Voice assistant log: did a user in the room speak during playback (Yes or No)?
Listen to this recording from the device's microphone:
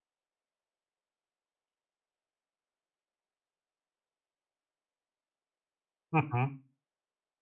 Yes